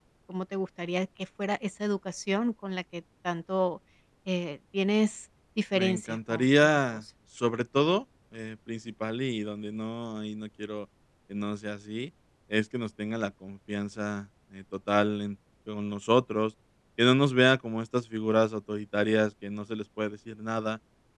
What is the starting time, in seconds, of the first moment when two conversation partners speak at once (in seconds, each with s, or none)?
5.7 s